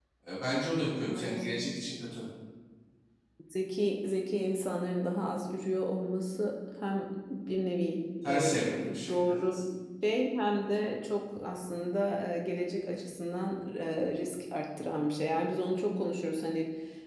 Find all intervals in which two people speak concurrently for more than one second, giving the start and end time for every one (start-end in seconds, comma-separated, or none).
8.2-9.6